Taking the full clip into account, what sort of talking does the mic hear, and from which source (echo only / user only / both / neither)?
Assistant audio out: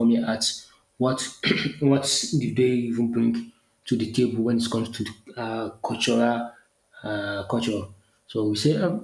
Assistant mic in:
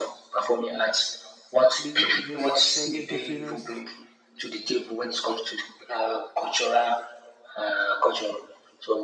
both